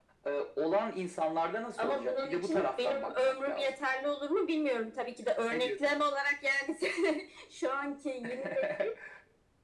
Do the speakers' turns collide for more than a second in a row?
Yes, from 1.8 s

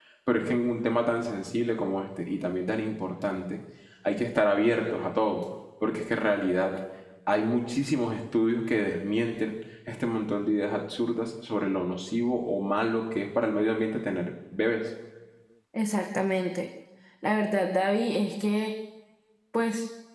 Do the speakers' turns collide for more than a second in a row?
No

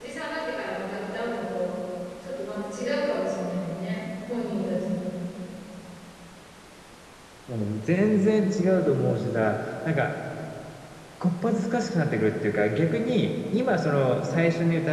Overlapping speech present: No

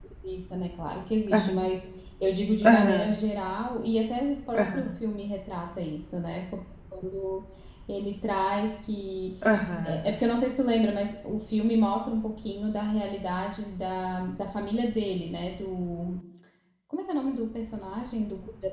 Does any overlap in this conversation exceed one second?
No

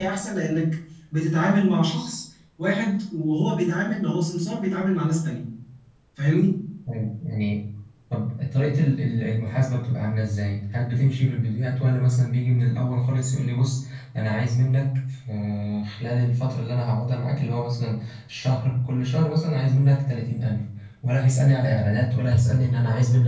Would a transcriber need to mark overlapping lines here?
No

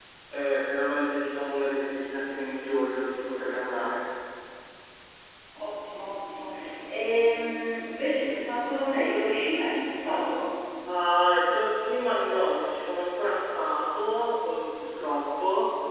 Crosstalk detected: No

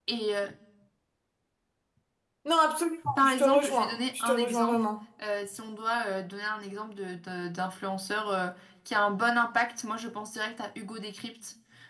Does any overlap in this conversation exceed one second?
Yes, from 3.1 s

